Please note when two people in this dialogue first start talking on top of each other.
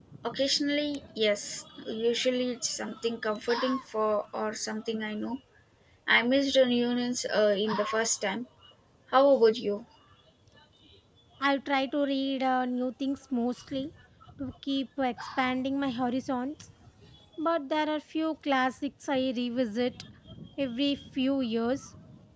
none

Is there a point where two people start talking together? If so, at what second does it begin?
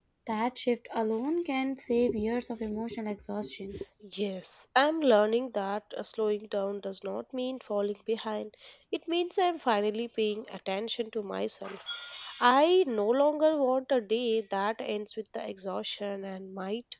none

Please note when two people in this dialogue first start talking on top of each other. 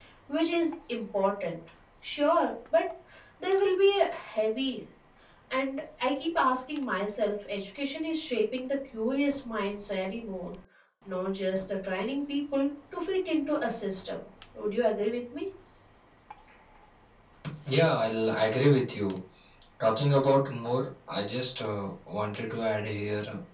none

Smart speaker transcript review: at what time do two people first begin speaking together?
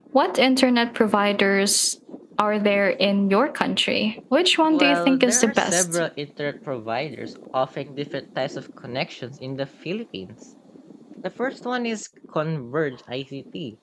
4.7 s

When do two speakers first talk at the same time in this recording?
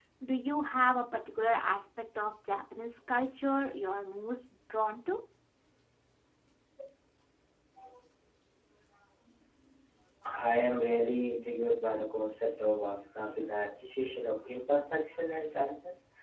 none

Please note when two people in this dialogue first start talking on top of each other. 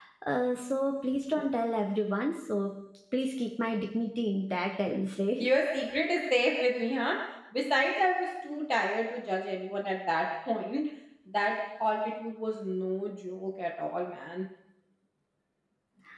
none

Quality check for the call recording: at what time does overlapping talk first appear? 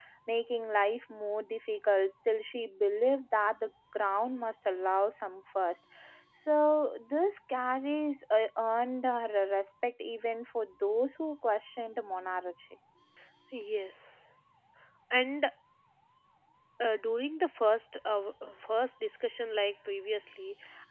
none

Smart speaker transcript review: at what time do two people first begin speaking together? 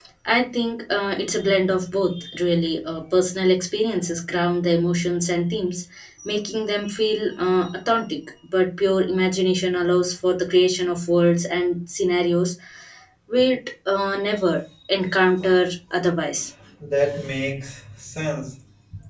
none

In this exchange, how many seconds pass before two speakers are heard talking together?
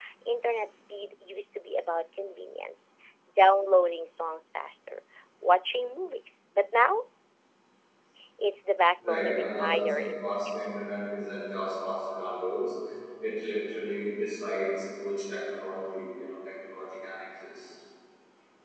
9.0 s

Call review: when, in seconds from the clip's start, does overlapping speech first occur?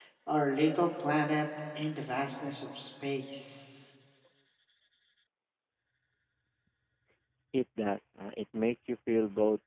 none

